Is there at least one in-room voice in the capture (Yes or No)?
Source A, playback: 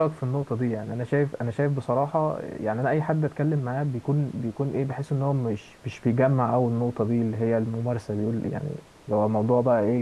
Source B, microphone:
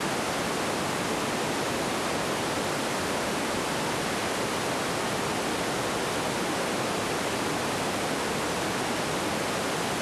No